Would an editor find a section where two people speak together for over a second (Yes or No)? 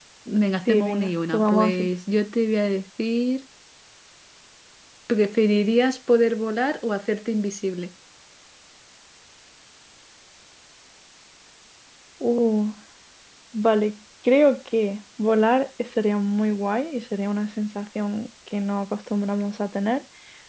Yes